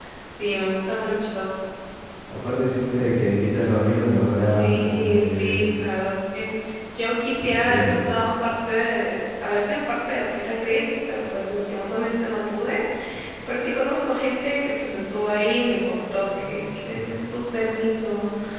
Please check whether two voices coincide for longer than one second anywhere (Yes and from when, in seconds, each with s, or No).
Yes, from 4.5 s